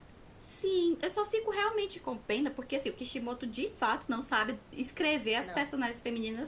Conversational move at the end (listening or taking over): listening